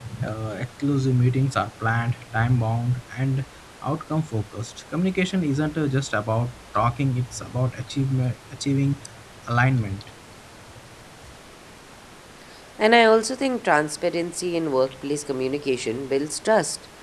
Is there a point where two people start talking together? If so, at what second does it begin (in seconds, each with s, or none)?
none